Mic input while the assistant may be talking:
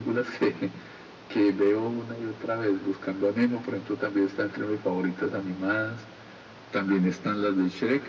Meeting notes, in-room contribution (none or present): none